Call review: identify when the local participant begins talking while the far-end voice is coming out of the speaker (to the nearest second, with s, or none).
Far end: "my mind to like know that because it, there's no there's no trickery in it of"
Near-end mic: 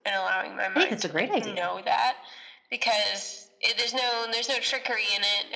1 s